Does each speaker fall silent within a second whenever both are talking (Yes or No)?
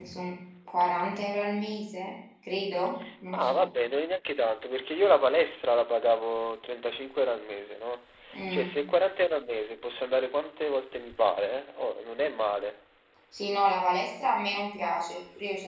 Yes